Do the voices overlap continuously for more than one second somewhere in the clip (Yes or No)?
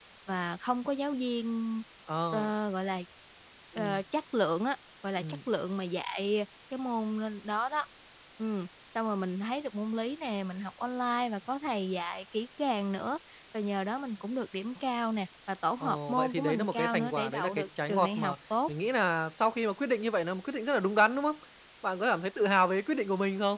Yes